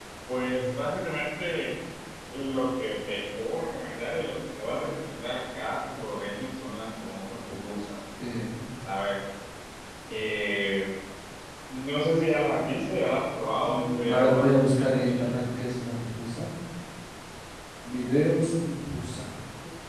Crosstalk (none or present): present